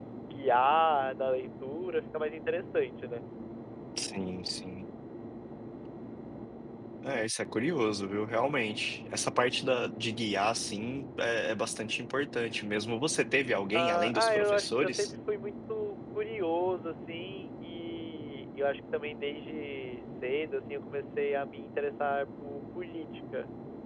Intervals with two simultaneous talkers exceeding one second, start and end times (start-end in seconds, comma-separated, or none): 13.7-15.1